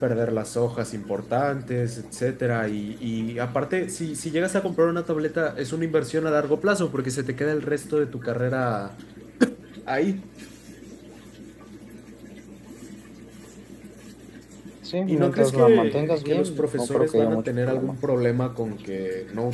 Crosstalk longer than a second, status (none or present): present